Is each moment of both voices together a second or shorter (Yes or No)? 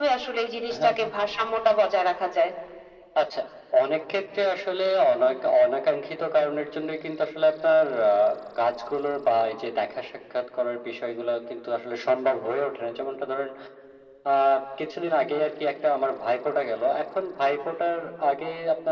Yes